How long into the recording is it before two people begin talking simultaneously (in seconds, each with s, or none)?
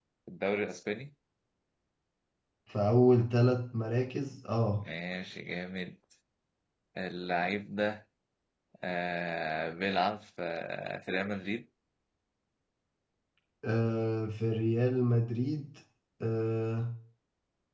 none